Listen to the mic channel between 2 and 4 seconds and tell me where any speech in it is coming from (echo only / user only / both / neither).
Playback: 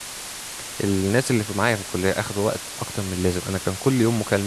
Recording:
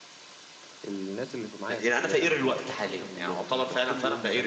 both